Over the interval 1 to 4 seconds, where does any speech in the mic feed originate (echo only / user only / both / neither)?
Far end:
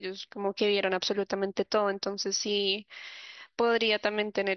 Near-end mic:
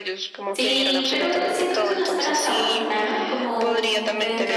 both